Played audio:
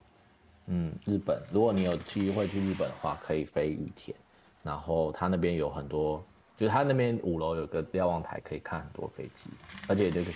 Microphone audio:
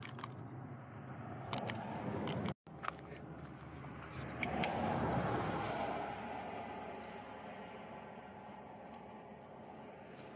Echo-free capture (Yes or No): Yes